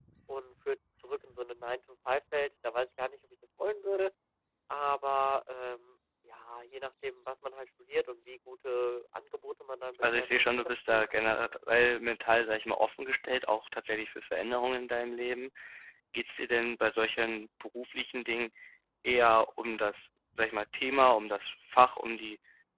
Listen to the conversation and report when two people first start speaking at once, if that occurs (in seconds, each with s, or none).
10.0 s